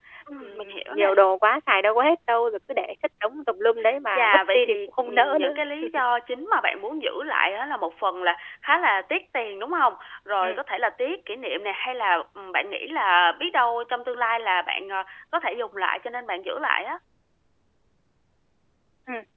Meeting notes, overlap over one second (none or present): present